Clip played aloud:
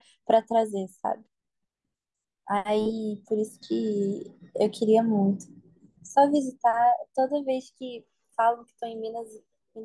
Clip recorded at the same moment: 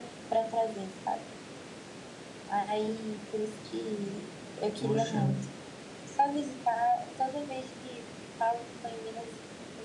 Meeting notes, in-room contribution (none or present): present